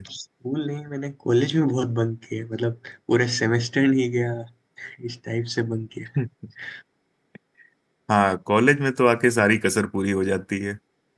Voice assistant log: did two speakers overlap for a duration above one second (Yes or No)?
No